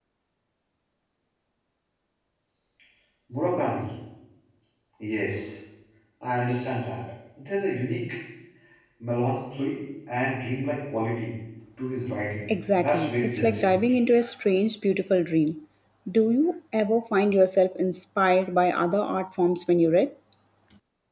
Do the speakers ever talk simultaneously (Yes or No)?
Yes